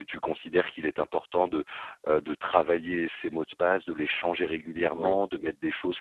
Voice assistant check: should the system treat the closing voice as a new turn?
No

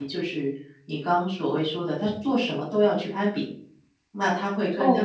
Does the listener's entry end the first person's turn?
Yes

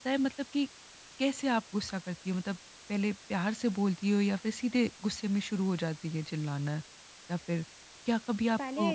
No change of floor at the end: Yes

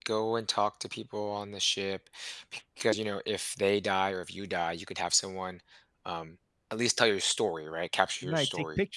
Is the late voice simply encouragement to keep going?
No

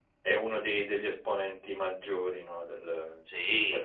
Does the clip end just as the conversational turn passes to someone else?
Yes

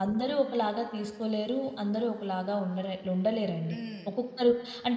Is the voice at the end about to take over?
No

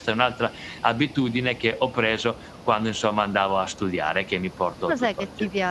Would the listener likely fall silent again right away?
No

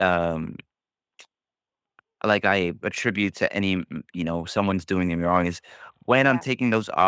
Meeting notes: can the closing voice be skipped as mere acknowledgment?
Yes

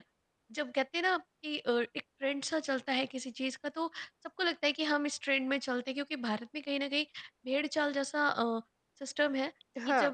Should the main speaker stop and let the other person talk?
No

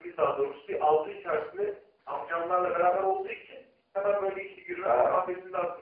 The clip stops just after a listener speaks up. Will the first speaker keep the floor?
Yes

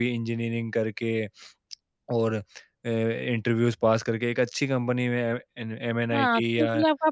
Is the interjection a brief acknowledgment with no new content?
No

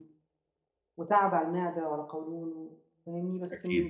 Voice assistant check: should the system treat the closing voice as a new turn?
No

